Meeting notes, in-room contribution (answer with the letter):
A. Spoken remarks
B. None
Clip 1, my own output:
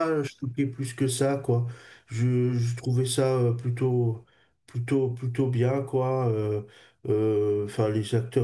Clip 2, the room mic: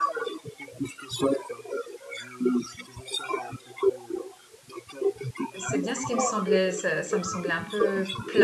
A